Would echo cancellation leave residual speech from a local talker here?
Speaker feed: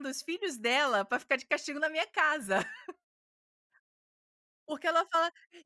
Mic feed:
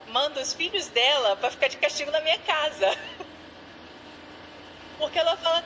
No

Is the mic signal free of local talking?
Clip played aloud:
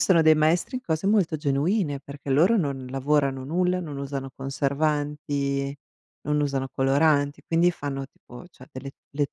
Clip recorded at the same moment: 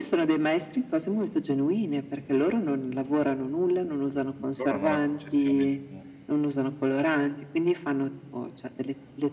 No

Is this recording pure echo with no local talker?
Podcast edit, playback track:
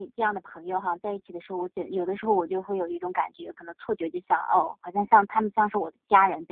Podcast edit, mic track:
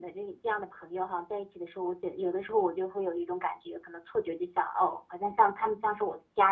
Yes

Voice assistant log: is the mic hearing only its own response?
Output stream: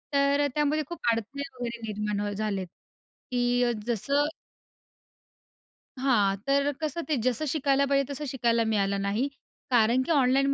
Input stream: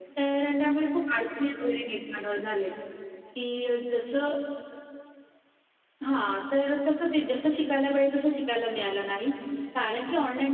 Yes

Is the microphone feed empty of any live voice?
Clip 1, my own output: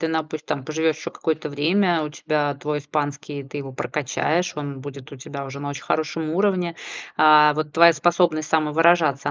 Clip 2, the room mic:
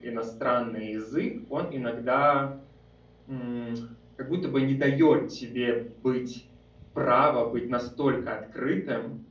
No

